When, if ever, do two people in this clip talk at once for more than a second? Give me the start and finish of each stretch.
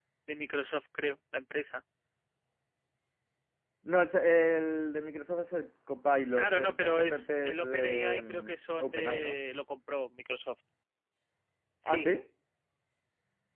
6.4-9.4

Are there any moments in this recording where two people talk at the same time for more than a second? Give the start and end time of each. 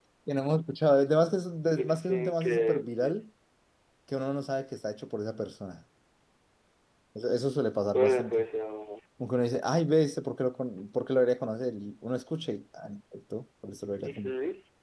1.8-3.1

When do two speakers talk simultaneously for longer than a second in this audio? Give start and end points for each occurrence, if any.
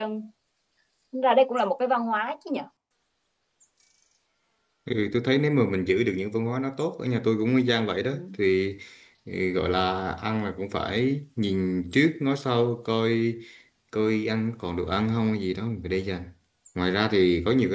none

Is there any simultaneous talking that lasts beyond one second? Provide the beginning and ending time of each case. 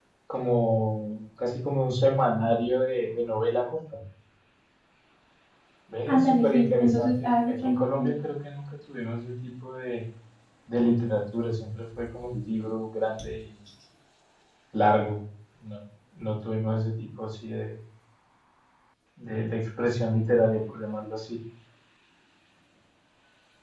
6.1-8.1

